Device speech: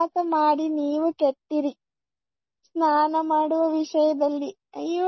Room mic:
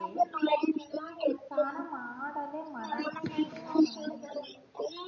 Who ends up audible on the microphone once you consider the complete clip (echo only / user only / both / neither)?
both